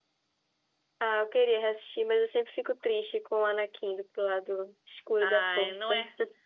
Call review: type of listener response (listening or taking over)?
taking over